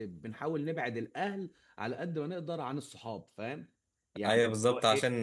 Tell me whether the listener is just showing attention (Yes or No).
No